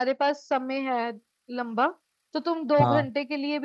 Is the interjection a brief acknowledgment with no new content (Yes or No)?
Yes